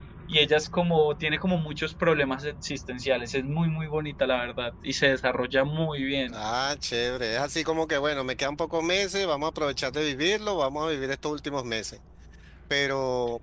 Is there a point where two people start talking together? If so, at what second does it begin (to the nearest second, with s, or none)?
none